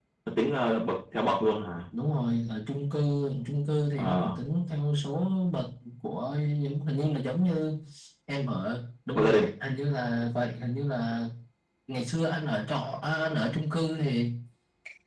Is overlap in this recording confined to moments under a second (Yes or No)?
Yes